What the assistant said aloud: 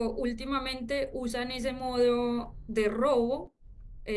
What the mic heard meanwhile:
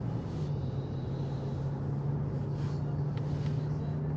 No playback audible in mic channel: Yes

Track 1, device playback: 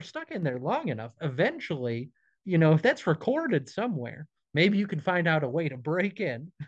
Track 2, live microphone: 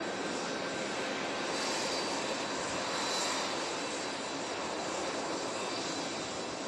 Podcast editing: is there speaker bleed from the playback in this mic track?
No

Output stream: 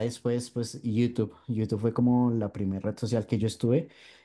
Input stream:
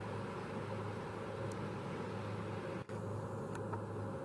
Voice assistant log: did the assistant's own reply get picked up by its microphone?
No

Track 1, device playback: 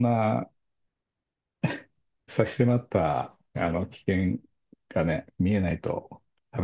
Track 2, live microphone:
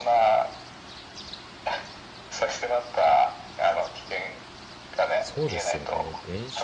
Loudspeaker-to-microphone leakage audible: Yes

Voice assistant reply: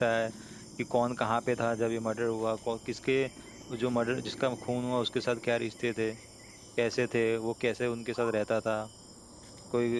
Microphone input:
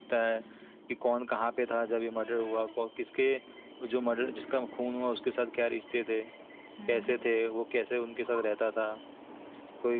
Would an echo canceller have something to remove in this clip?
Yes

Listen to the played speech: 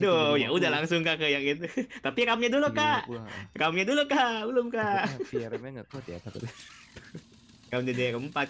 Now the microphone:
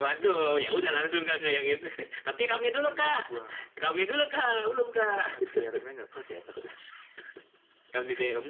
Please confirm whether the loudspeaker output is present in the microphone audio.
Yes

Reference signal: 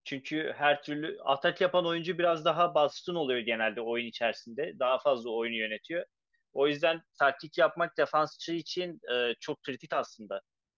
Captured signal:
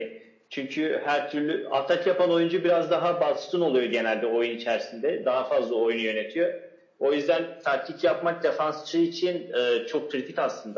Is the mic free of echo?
No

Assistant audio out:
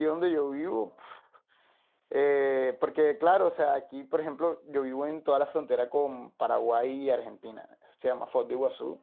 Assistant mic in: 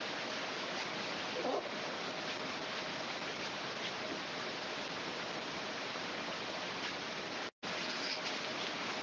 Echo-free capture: Yes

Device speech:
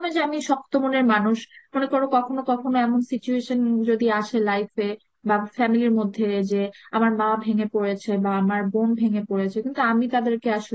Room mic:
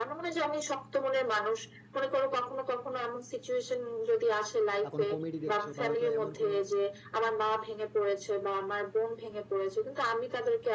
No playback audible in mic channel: No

